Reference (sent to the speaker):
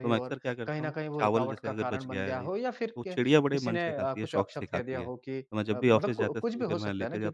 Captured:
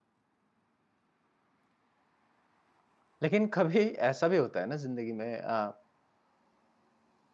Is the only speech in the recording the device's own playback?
No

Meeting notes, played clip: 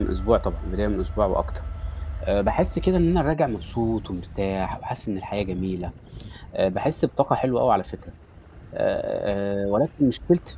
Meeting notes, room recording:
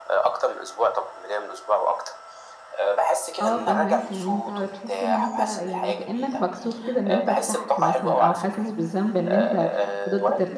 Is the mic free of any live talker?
No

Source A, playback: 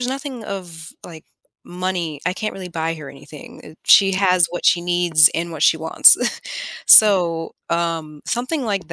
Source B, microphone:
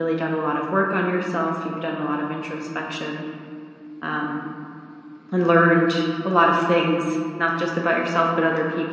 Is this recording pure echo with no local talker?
No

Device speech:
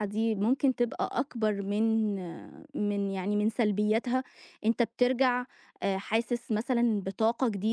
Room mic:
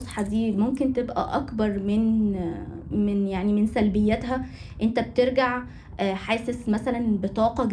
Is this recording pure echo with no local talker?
Yes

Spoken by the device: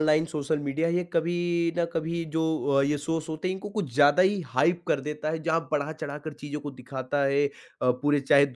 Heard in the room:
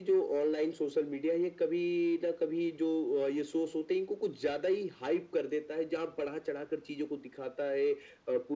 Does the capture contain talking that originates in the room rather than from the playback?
No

